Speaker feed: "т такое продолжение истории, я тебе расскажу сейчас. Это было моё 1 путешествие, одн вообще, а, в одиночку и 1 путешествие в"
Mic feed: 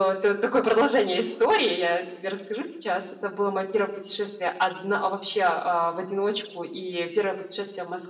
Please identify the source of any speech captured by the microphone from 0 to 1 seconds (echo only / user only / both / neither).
echo only